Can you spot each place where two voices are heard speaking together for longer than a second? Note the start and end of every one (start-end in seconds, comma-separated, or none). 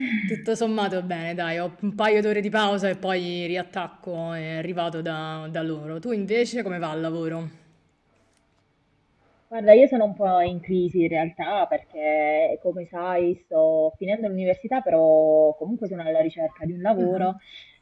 none